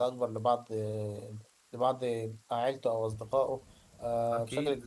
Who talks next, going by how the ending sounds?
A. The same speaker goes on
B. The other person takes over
B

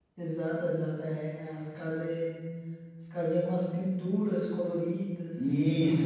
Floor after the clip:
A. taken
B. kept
A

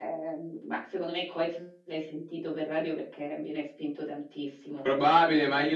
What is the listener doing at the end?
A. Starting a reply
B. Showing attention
A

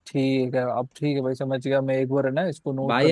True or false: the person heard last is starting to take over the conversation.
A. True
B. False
A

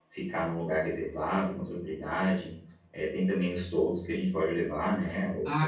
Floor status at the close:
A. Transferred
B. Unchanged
A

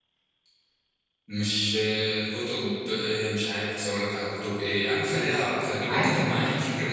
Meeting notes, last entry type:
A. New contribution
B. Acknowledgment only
B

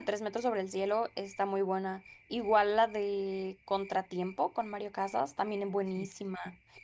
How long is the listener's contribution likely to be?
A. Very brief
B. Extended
A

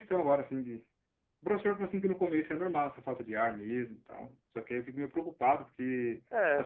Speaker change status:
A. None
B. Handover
A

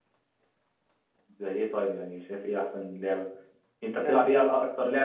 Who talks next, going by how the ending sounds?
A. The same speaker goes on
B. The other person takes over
A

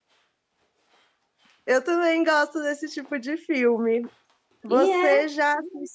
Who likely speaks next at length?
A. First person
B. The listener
A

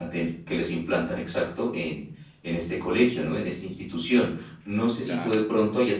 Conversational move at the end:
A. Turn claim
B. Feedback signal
B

